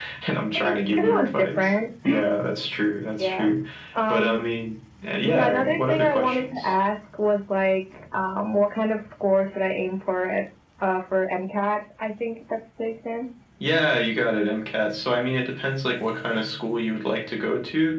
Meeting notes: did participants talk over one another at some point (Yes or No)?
Yes